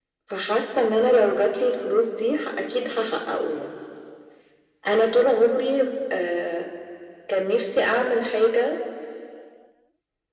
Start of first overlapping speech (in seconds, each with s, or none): none